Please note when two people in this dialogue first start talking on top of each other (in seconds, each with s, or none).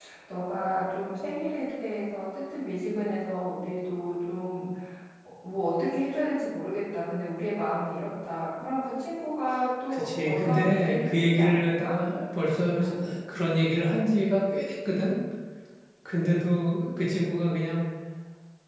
9.9 s